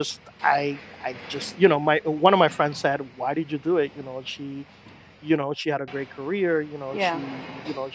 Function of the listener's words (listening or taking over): listening